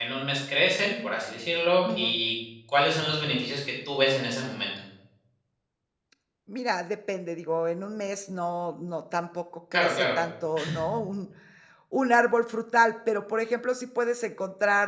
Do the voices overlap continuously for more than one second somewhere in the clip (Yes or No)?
No